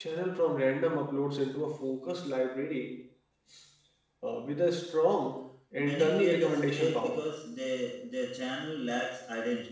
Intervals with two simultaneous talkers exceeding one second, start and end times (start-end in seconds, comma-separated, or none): 5.8-7.2